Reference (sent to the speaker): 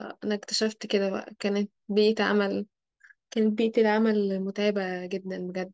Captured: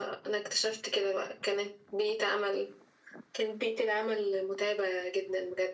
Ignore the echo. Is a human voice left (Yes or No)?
No